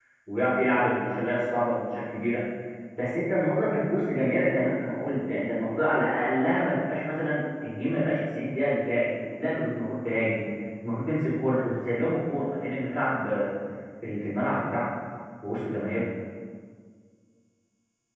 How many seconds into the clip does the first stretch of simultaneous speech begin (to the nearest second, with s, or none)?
none